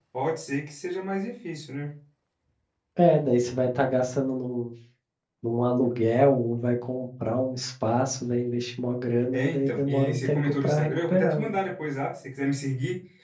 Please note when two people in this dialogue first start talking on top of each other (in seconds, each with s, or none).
9.3 s